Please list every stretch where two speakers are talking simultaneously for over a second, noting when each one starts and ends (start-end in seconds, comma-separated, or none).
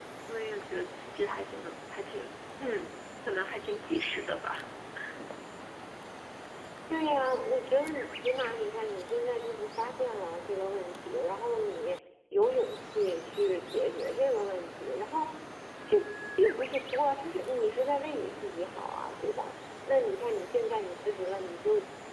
none